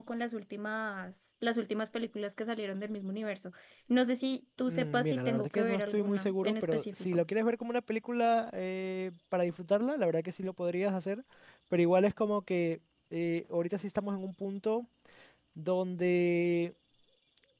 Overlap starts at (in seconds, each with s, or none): 4.7 s